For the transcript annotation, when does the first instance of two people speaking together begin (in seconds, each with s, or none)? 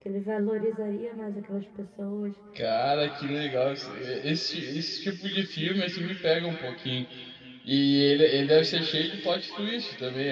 none